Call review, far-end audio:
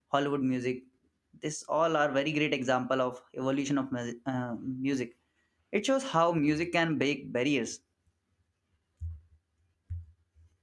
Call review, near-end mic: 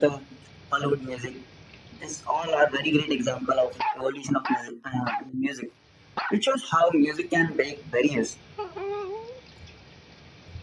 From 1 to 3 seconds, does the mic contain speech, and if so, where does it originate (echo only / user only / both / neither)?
echo only